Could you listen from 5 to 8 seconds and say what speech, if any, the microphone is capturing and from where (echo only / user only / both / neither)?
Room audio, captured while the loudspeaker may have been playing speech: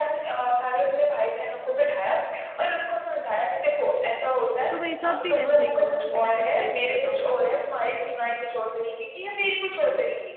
both